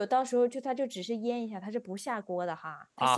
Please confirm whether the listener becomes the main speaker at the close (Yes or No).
Yes